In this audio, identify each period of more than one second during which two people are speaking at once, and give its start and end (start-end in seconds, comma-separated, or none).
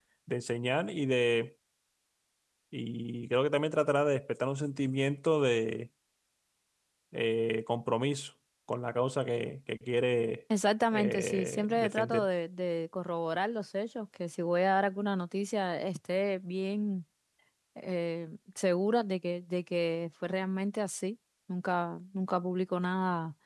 10.9-12.2